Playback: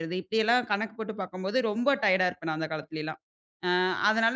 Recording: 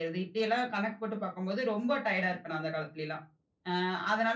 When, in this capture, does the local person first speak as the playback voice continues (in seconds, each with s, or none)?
none